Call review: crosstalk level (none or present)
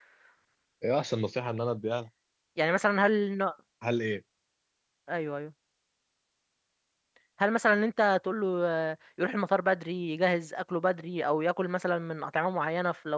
none